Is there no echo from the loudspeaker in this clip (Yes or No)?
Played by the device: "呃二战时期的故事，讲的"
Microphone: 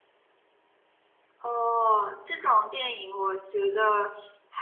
Yes